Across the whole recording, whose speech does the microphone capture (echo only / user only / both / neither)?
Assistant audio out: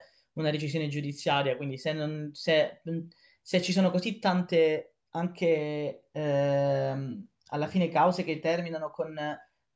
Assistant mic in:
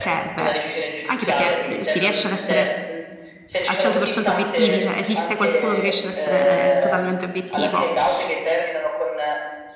both